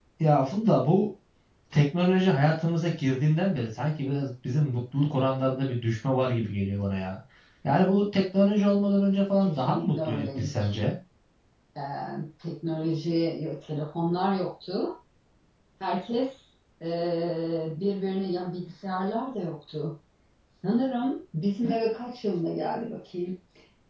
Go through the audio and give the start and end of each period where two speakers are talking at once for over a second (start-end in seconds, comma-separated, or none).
9.4-10.6